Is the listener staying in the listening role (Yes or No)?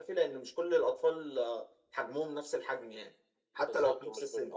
No